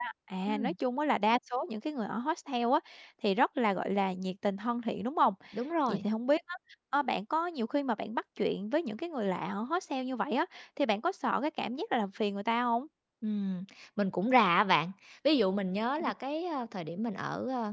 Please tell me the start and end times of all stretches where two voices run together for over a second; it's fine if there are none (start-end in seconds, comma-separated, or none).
none